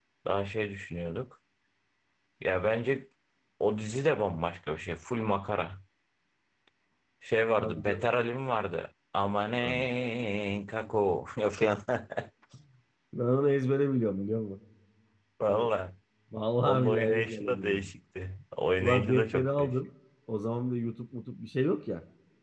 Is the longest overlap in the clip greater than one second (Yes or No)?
Yes